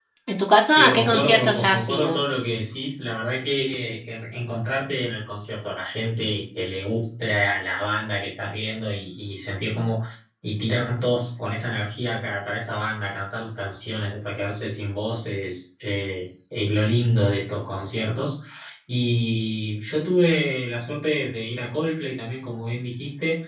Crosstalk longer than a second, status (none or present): present